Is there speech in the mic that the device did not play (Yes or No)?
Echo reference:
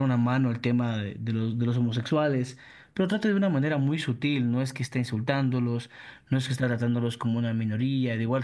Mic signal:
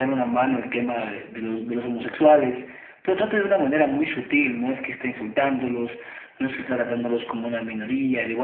No